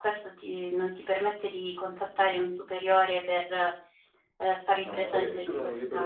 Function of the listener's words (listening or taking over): taking over